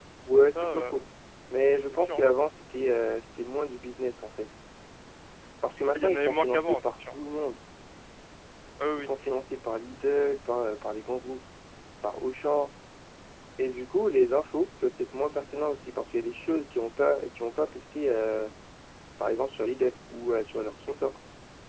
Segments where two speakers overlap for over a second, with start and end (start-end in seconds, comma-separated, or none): 5.9-7.1